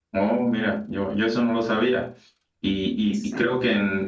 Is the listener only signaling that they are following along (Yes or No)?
Yes